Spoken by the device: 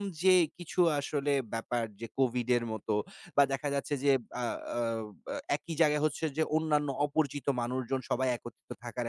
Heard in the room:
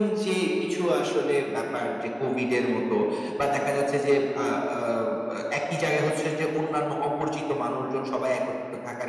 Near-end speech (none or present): none